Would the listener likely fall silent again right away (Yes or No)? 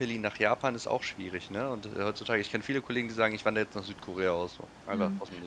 No